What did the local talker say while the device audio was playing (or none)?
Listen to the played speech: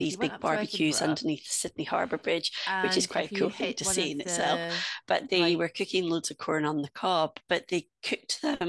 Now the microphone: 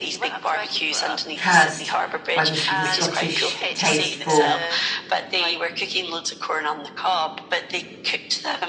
cursed by the the Scottish taste for